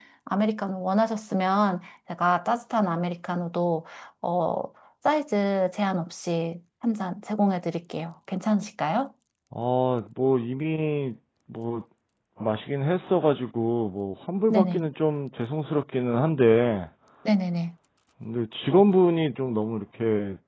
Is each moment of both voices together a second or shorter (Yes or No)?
Yes